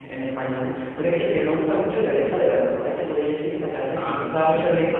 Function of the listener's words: listening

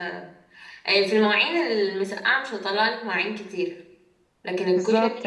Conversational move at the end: listening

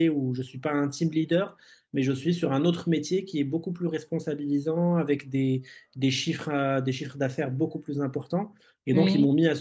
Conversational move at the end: listening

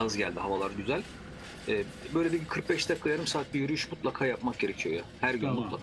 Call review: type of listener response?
taking over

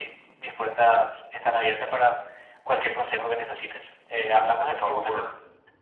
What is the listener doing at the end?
taking over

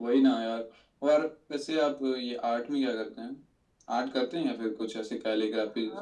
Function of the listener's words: taking over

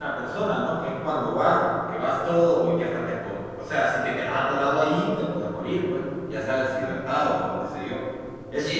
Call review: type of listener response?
taking over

